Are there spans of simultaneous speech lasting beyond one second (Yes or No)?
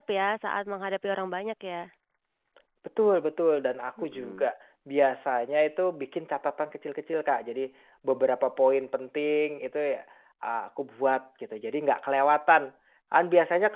No